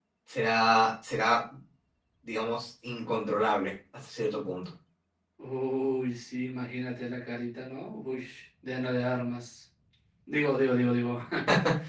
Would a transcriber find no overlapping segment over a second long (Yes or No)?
Yes